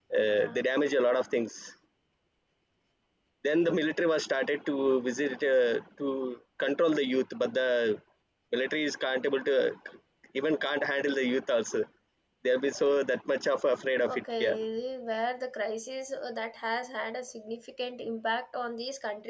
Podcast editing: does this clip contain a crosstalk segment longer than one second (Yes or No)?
No